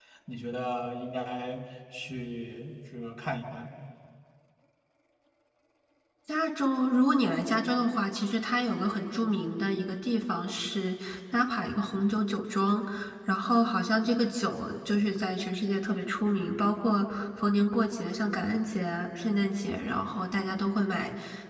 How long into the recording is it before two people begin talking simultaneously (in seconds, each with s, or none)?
none